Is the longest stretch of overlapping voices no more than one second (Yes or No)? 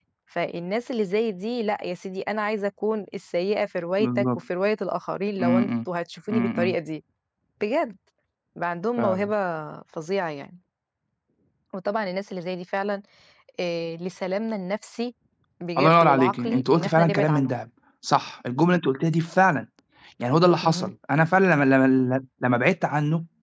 No